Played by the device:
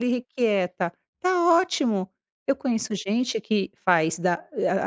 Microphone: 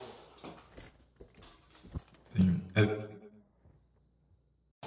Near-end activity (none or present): present